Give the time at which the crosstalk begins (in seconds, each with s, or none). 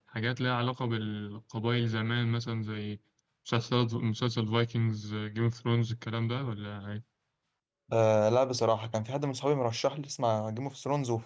none